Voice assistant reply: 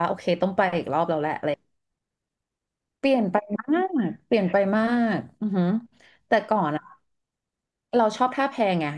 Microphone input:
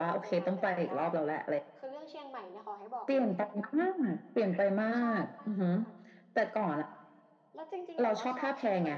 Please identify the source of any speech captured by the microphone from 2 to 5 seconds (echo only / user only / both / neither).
both